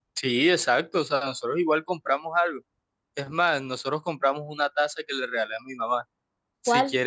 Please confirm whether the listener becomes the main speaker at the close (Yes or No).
No